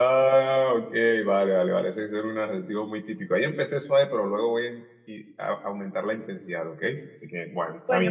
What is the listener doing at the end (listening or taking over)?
taking over